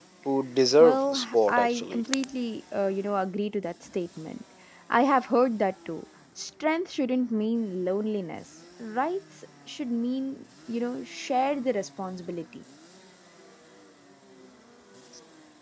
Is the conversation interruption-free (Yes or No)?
No